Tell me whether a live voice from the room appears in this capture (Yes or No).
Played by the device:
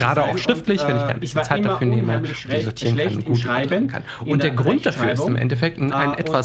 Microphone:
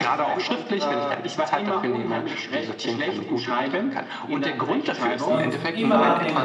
Yes